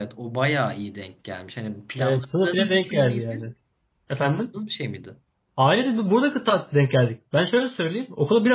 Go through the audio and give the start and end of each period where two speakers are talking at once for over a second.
2.0-3.4

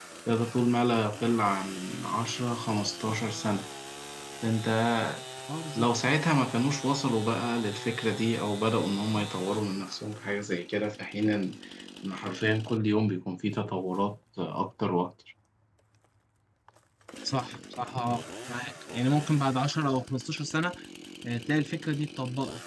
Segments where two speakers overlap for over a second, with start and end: none

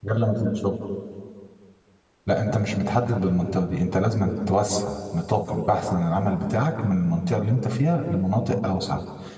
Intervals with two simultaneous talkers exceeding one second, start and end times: none

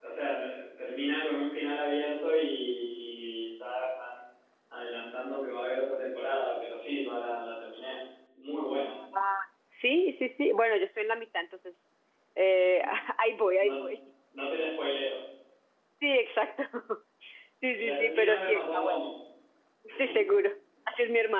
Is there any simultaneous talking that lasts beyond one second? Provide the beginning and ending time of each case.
17.7-19.0

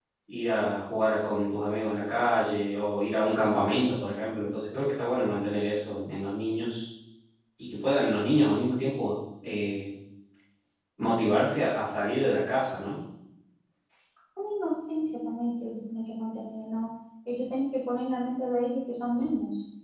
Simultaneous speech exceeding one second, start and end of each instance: none

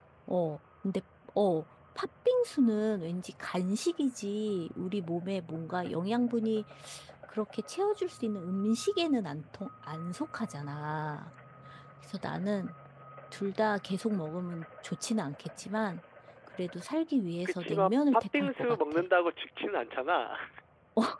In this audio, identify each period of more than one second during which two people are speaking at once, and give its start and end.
17.4-19.0

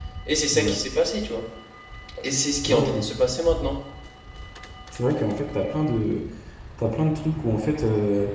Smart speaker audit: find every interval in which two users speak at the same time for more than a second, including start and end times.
none

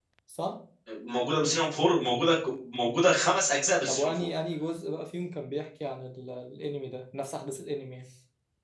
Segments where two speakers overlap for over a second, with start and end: none

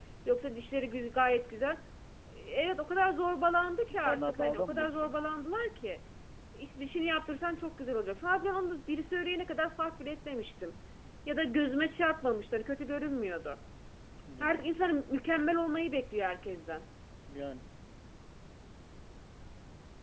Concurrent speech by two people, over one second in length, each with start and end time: 3.9-5.1

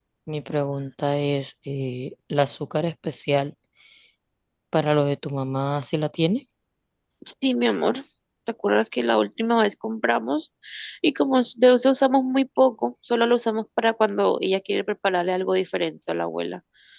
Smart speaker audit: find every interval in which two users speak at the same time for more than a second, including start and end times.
none

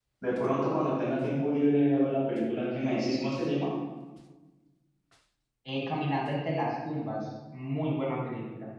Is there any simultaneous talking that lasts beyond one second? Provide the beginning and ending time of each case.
none

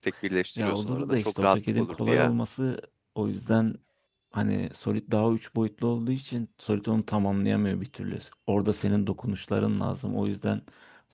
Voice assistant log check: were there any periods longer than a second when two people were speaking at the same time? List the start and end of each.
0.6-2.3

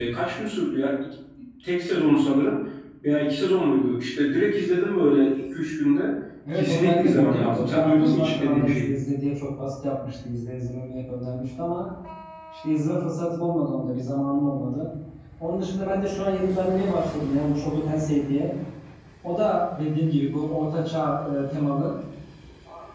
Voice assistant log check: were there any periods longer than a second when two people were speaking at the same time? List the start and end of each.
6.5-8.9

